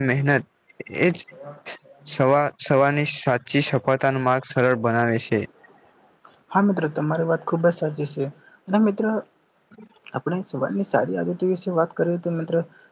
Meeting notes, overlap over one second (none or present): none